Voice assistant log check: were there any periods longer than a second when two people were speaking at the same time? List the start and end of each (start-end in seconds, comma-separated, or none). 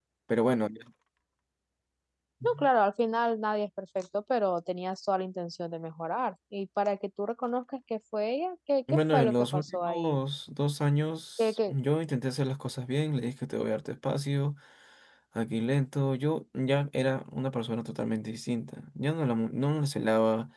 8.9-10.2